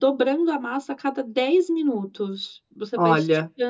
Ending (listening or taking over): listening